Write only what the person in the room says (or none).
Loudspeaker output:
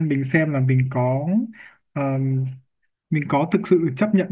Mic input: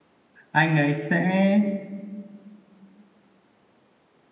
anh ấy sẽ